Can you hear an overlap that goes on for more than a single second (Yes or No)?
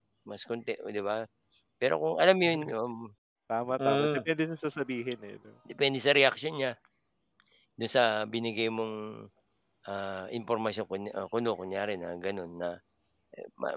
No